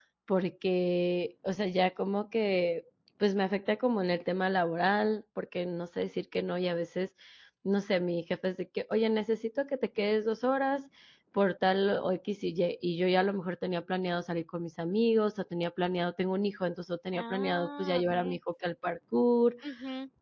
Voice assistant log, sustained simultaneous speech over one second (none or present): present